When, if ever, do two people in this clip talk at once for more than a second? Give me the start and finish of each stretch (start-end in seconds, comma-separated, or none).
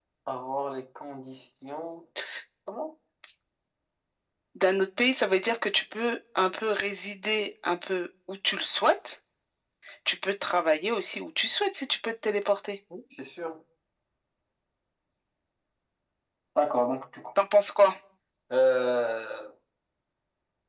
none